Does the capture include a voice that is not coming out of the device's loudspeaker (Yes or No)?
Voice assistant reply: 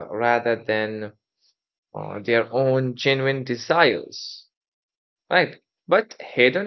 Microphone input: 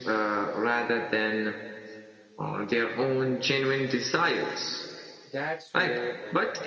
Yes